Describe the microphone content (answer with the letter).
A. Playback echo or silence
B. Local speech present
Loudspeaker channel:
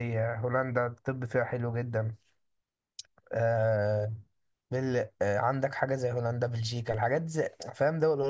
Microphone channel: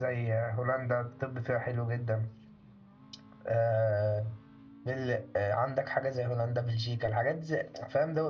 A